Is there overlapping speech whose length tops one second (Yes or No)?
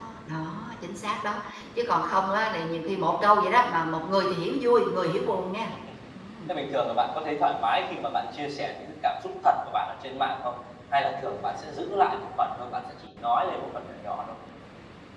No